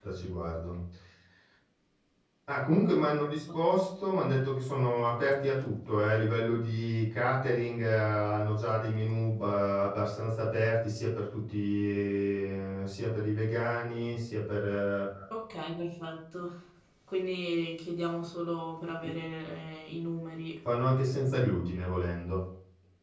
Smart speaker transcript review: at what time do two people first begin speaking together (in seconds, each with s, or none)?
none